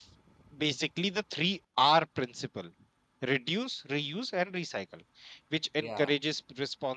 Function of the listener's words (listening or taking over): listening